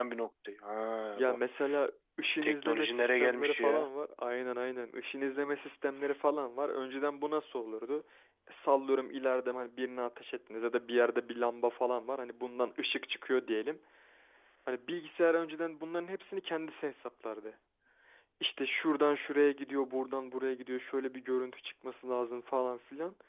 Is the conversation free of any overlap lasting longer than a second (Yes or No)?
No